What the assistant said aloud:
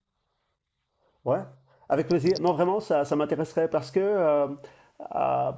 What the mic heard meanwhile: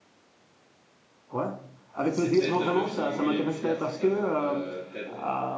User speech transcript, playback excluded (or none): Ah, c'est Ted, le film où il est vulgaire, c'est ça, non? Euh, Ted.